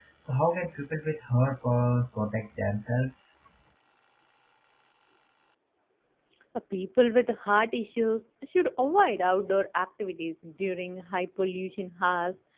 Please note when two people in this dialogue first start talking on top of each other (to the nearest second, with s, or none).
none